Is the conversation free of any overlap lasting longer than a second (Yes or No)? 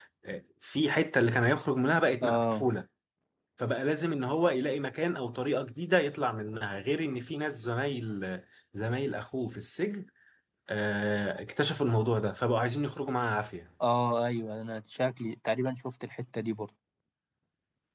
Yes